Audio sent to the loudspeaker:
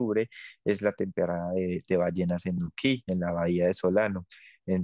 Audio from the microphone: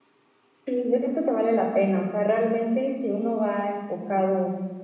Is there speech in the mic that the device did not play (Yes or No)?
Yes